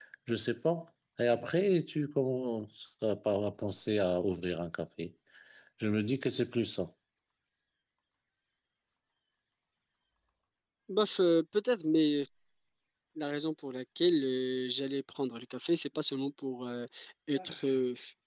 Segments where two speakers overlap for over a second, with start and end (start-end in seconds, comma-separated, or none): none